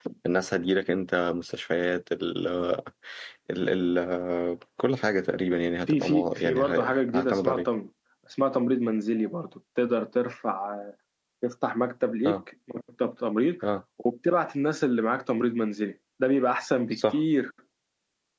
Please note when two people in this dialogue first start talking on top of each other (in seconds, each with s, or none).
5.9 s